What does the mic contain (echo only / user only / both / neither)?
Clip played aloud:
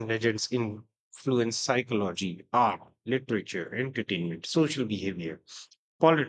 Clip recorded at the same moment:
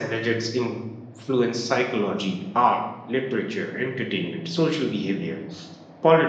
echo only